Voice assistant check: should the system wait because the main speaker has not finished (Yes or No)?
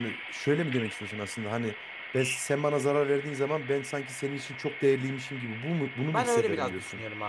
No